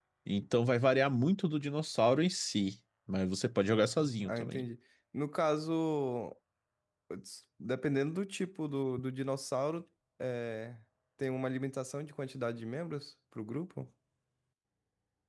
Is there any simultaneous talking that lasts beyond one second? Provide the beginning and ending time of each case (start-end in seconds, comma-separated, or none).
none